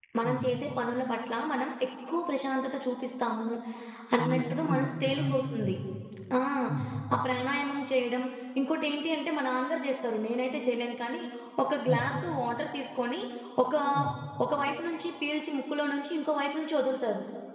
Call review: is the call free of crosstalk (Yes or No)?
No